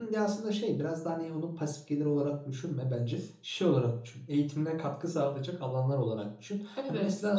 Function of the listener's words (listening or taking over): listening